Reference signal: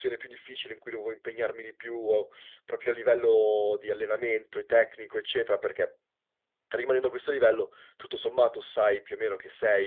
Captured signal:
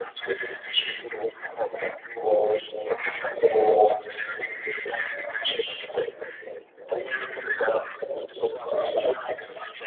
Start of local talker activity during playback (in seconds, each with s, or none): none